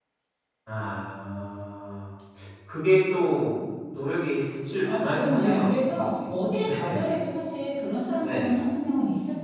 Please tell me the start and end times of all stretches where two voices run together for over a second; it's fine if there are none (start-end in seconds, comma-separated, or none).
4.8-6.3